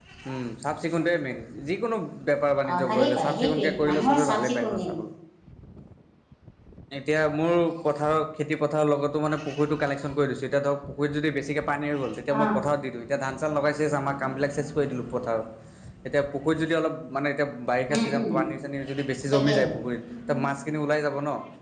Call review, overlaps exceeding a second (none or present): present